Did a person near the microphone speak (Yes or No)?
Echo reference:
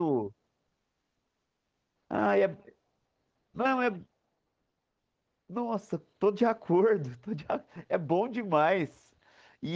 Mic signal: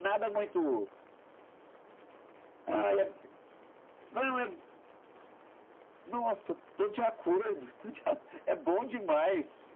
No